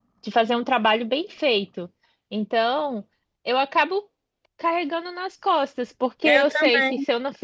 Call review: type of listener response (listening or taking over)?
listening